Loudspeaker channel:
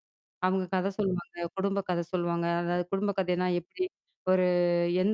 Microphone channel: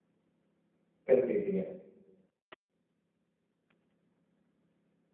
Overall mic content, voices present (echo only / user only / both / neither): user only